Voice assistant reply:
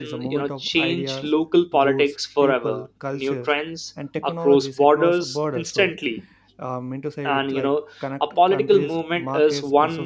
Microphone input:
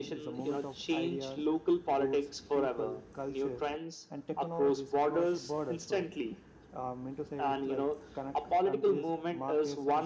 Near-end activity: none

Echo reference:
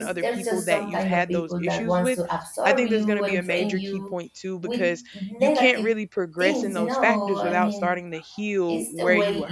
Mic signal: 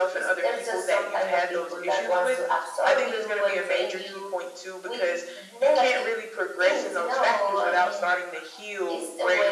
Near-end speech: none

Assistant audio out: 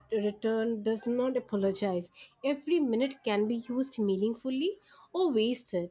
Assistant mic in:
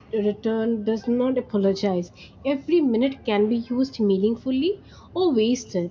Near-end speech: none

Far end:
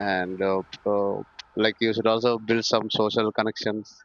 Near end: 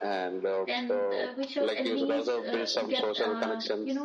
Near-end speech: present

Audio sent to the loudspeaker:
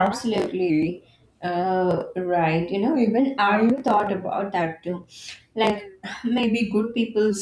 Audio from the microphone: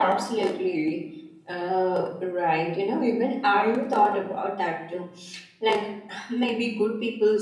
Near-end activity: none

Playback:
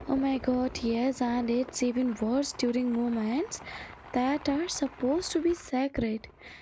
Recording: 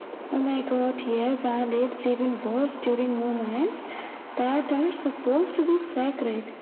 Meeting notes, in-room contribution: none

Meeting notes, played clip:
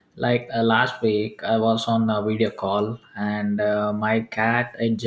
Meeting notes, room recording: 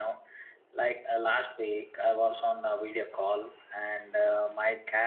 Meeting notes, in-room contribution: none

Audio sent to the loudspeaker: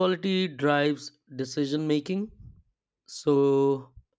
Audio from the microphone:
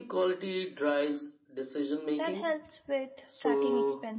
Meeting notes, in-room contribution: present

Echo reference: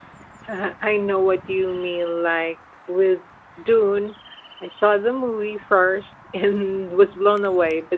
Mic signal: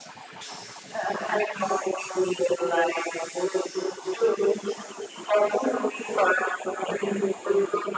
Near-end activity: none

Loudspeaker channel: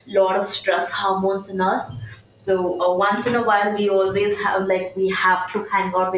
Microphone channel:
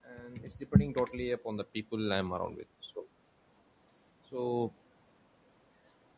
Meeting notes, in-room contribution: present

